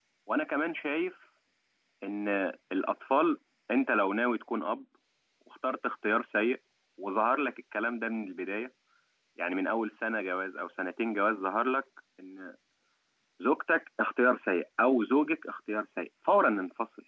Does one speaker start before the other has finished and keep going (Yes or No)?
No